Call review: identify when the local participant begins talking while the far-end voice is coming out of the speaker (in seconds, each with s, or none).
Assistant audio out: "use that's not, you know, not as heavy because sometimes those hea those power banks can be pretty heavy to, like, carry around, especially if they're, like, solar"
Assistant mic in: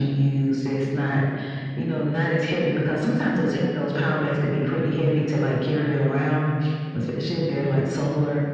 none